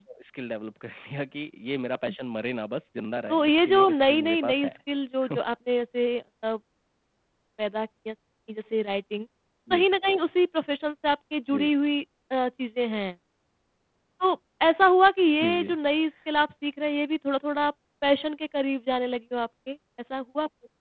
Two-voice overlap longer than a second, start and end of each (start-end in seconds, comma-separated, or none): 3.3-4.7